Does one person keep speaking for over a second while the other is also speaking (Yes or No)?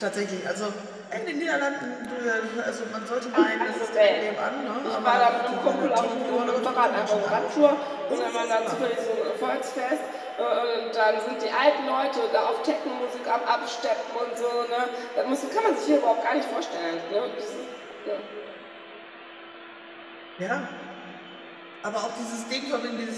Yes